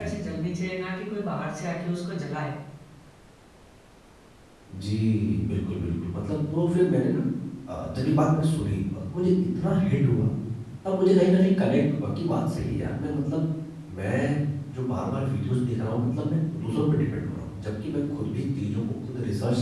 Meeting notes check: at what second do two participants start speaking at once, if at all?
none

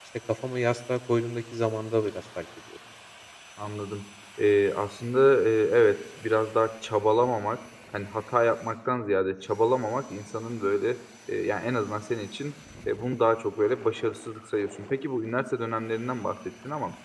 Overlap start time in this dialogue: none

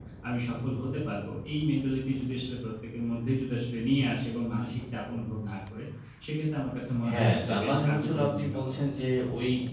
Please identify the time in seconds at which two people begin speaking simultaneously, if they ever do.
7 s

